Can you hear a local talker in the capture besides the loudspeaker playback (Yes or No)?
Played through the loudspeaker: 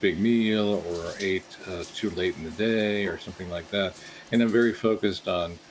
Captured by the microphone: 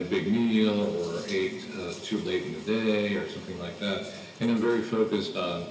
No